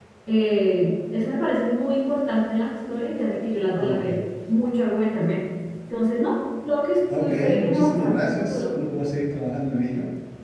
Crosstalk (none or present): present